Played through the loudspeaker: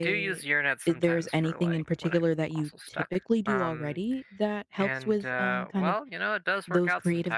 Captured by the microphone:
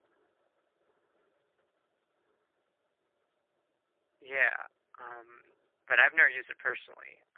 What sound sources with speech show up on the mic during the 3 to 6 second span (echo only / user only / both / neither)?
user only